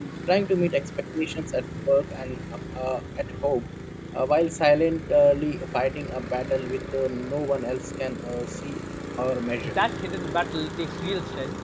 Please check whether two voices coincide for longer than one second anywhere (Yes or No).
No